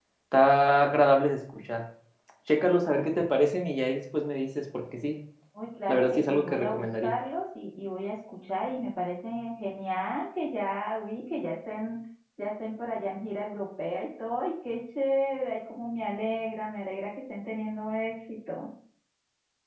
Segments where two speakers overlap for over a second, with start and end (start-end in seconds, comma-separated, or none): 5.9-7.1